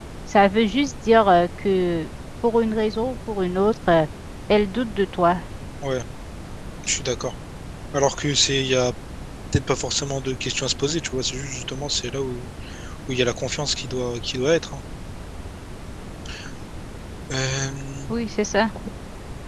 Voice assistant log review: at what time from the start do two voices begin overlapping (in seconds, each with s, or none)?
none